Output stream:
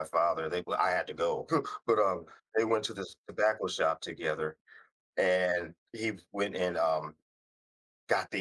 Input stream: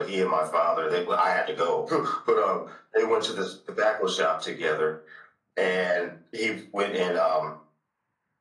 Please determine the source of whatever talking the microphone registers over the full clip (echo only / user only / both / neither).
echo only